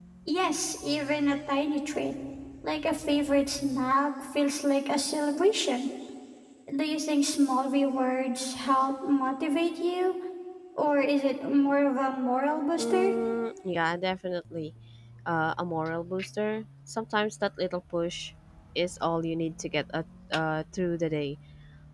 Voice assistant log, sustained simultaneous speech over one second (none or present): none